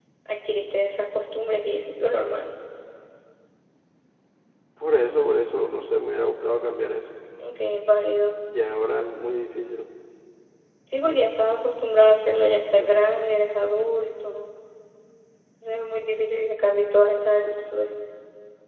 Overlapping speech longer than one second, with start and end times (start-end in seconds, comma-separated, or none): none